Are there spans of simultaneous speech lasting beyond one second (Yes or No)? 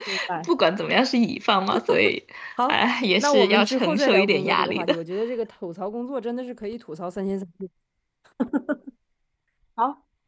Yes